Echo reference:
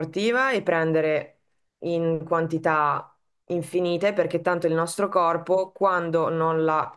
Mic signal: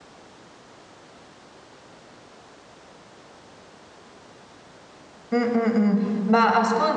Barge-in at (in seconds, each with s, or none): 5.3 s